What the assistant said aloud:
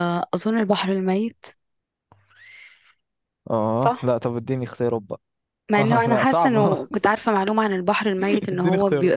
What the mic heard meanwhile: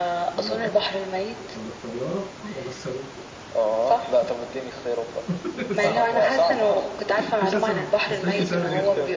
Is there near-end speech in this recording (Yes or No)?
Yes